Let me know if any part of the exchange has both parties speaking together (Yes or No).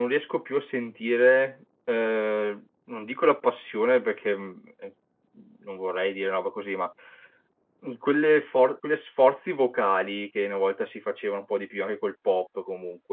No